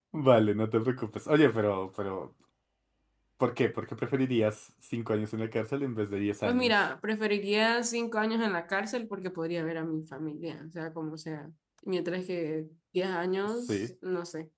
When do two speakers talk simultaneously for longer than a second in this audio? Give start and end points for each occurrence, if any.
none

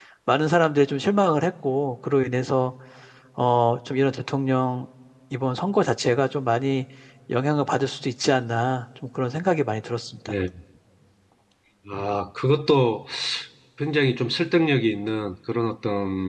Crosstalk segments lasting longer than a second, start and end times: none

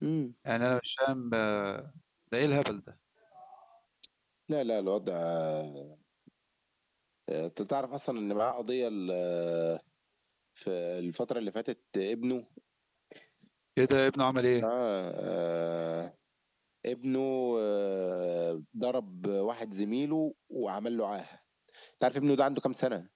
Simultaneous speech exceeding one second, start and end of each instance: none

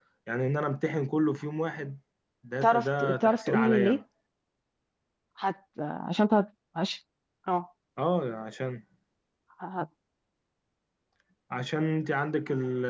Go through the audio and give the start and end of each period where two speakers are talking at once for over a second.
2.6-4.0

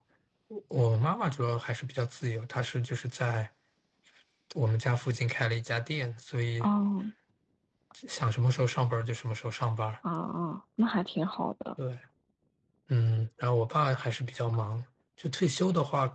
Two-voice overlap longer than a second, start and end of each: none

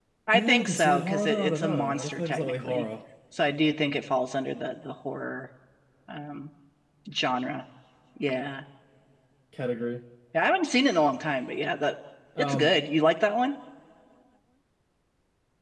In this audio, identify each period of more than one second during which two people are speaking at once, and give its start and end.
0.5-2.9

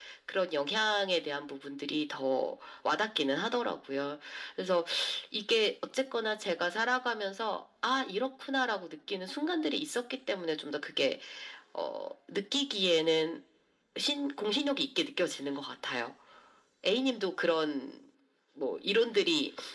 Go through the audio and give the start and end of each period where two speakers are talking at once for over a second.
none

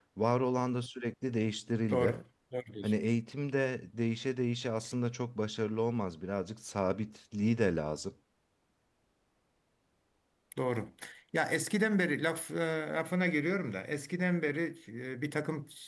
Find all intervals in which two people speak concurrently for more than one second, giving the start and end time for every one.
none

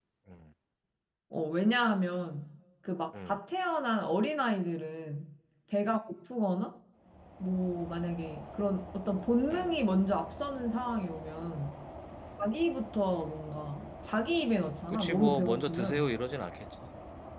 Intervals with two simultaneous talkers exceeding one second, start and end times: 14.9-16.1

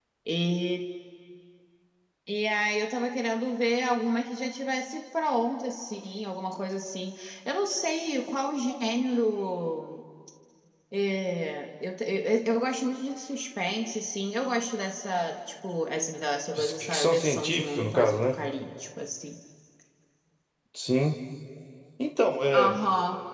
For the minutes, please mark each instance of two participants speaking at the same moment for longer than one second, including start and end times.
16.6-18.2

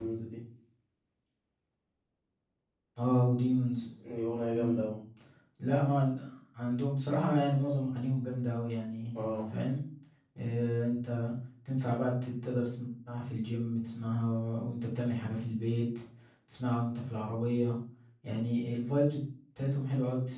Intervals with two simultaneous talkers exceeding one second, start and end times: none

